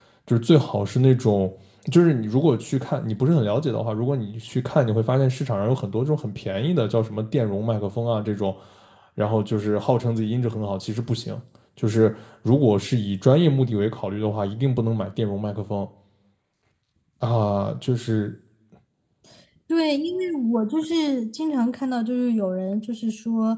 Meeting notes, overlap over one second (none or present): none